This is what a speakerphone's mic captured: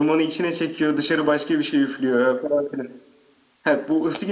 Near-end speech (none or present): none